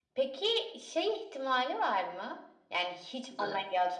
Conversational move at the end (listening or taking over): listening